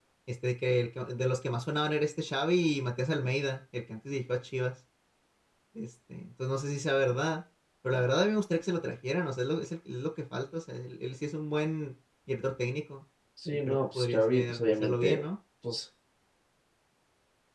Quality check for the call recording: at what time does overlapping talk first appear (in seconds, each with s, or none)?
13.7 s